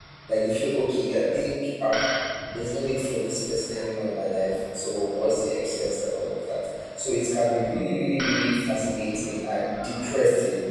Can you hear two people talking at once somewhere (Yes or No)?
No